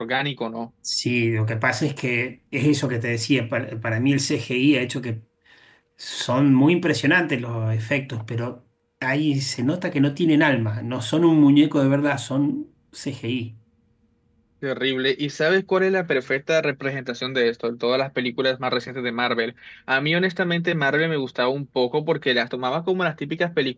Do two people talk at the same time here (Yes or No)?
No